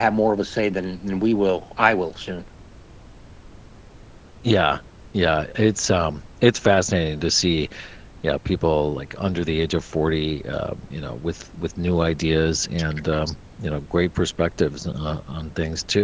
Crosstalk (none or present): none